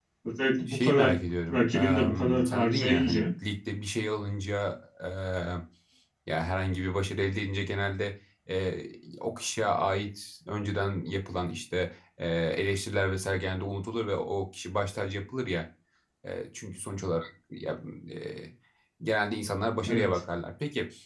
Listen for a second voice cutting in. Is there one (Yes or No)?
Yes